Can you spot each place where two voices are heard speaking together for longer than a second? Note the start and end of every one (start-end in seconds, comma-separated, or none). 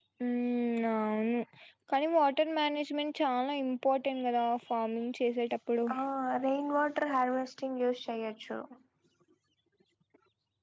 none